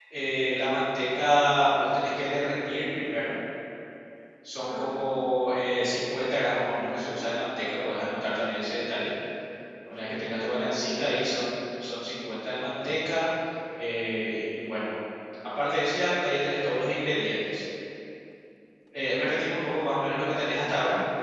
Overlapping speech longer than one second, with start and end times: 10.0-11.3

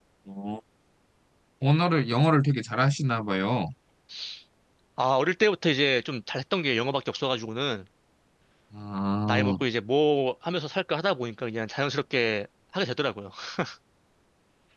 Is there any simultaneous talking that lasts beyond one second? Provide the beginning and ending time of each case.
none

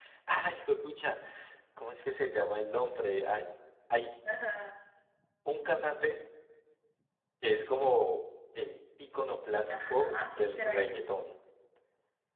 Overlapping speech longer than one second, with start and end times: 9.7-10.9

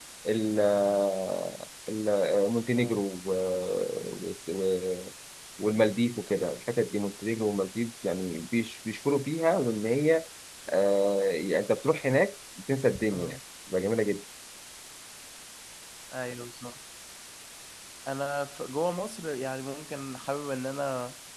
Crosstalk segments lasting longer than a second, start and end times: none

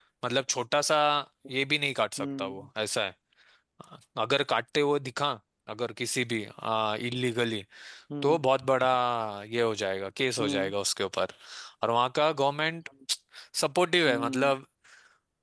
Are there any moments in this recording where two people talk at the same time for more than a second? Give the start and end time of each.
none

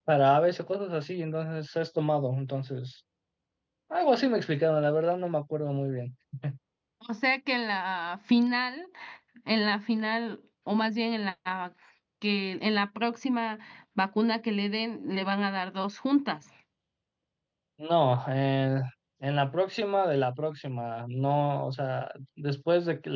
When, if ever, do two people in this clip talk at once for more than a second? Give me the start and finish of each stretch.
none

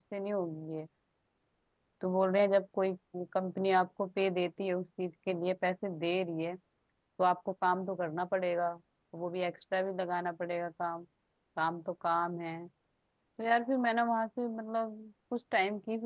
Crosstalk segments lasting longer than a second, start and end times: none

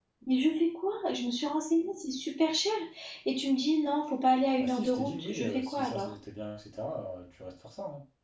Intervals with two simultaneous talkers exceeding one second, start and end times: 4.6-6.1

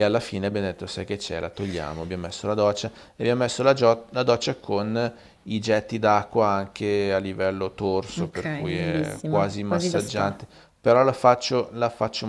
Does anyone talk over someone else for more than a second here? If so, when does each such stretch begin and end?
8.2-10.4

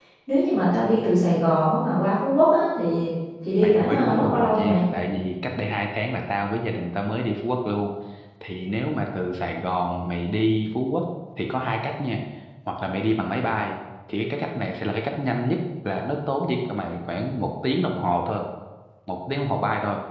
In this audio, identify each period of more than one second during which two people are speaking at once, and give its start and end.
3.6-4.8

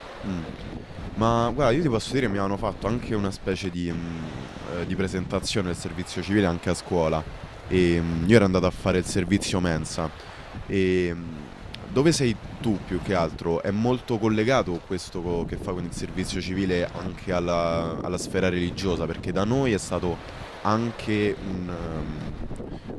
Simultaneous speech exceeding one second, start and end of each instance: none

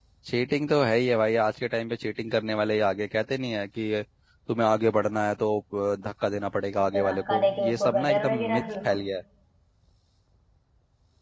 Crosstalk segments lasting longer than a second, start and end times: 6.8-9.0

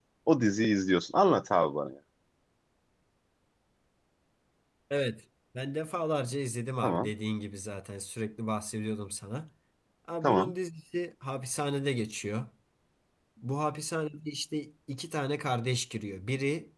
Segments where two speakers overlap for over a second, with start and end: none

